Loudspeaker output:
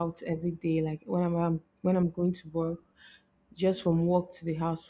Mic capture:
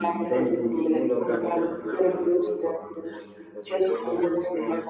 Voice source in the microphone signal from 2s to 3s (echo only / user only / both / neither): both